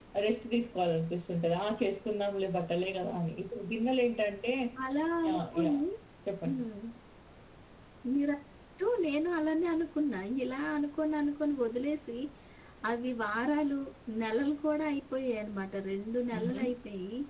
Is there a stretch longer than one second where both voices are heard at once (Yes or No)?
No